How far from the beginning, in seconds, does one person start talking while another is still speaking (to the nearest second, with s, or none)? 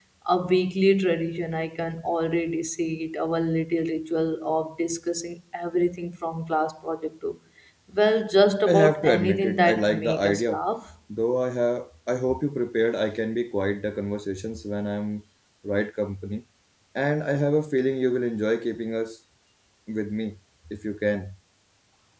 9 s